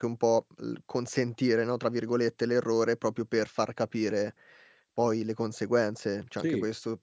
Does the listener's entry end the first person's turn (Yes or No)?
No